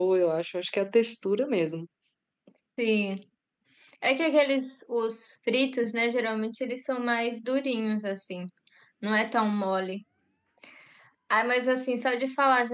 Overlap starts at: none

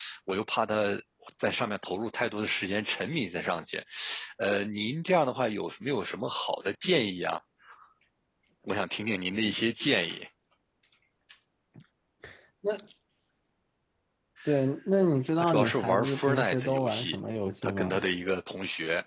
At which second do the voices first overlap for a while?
15.4 s

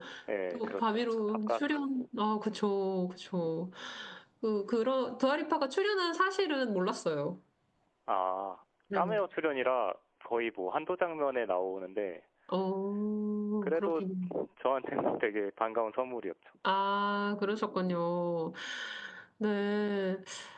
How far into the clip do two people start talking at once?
0.5 s

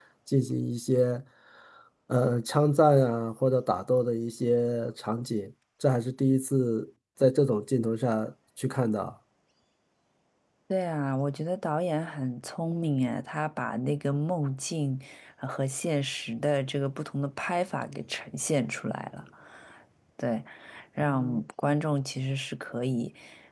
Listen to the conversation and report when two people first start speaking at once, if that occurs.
none

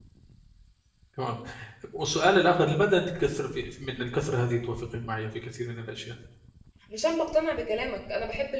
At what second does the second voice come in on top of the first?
none

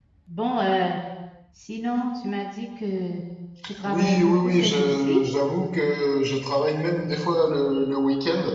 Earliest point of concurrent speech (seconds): 3.9 s

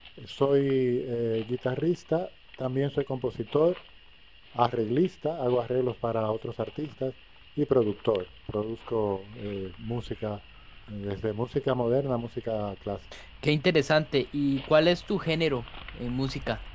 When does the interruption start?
none

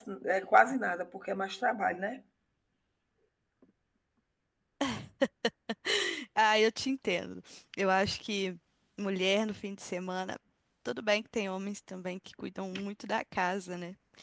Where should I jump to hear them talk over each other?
none

